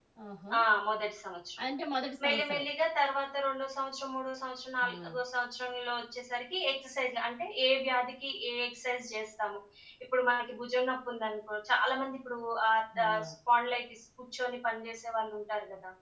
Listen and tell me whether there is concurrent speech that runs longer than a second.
No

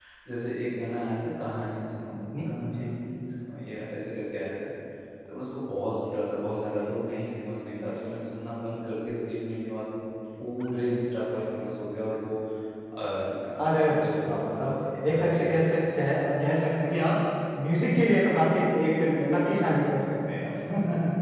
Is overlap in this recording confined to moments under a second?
No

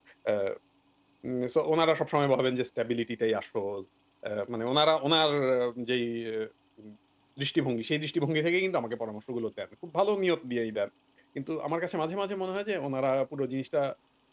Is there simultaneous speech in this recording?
No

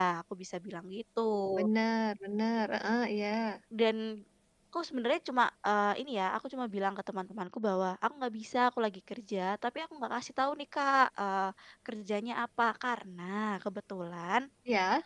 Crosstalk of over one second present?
No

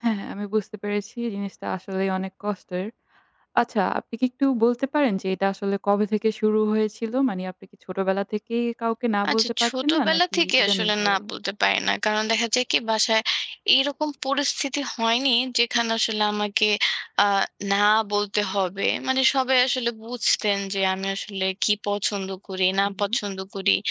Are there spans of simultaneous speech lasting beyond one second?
Yes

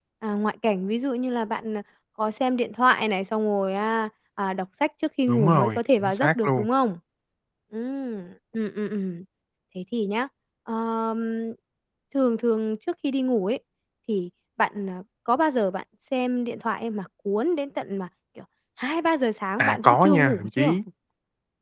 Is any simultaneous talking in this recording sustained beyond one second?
Yes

